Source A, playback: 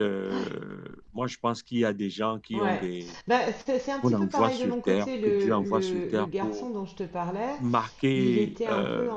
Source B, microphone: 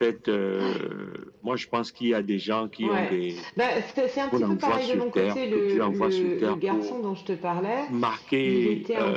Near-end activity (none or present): none